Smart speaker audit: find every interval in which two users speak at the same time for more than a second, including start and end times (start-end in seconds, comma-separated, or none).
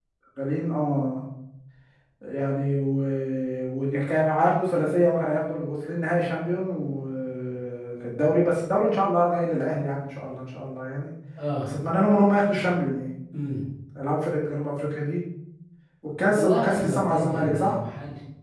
16.3-17.8